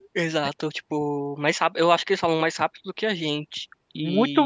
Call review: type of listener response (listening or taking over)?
taking over